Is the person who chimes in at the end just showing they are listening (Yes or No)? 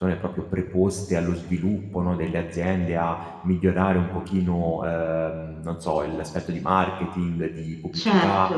Yes